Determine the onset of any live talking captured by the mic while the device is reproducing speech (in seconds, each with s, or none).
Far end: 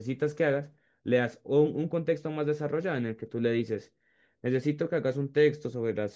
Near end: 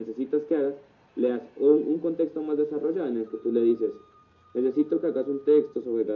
none